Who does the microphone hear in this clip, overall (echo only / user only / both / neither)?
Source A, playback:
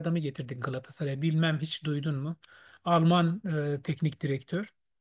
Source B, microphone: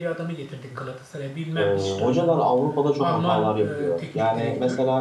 both